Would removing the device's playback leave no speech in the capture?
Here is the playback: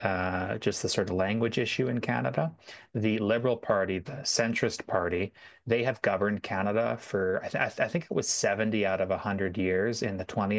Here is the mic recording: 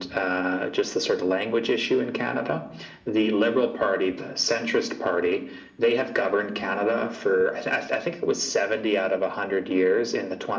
Yes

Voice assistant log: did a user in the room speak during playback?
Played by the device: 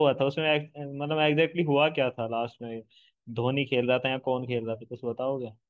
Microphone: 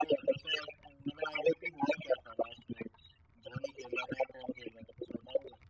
No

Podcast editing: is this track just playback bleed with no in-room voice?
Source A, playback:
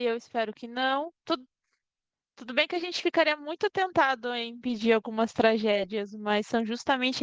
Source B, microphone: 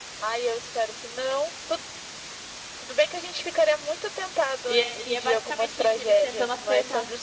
No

